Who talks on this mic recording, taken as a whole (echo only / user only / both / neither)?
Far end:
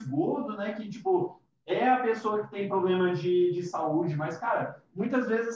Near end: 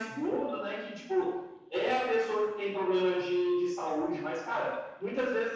echo only